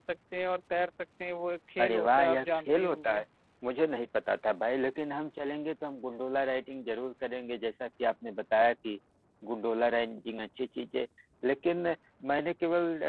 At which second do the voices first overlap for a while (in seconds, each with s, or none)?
1.8 s